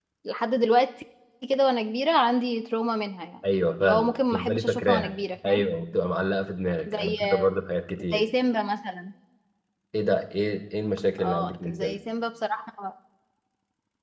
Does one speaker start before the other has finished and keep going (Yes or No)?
Yes